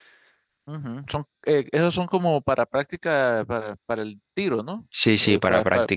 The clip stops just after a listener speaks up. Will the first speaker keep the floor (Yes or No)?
No